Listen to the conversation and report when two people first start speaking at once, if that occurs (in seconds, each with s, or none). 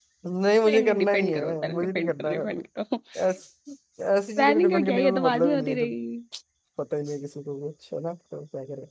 0.7 s